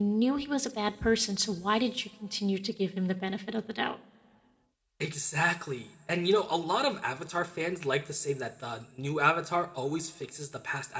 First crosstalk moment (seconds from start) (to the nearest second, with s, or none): none